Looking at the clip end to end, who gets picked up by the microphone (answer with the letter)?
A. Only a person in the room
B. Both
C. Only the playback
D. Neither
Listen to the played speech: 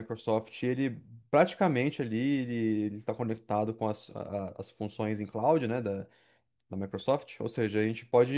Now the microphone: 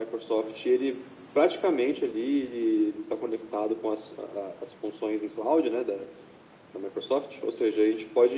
C